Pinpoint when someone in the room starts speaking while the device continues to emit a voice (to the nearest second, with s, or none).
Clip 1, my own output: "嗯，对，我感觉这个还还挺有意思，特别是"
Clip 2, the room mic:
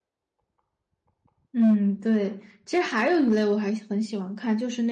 2 s